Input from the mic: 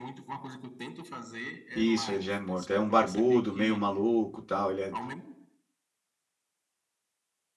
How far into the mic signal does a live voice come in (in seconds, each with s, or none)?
1.7 s